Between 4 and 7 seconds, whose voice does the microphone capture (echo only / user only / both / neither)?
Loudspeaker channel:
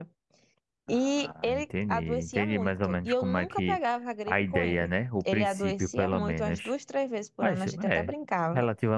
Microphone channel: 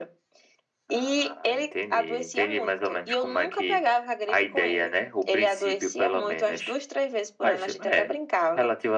echo only